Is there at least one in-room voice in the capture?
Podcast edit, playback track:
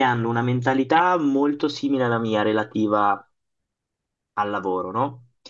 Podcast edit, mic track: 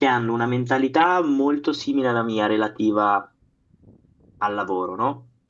No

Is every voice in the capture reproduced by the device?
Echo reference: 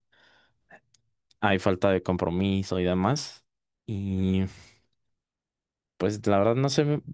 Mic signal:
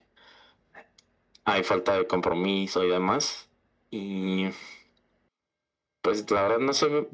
Yes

